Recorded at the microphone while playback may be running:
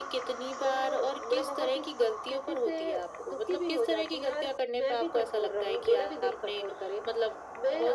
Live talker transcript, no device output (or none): none